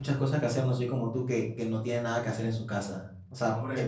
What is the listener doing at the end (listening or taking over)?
taking over